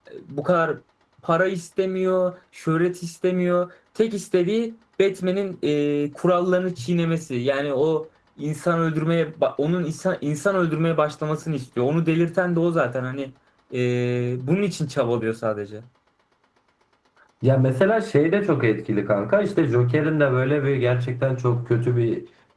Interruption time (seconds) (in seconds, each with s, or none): none